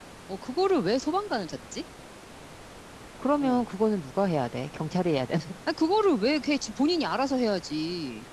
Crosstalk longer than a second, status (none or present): none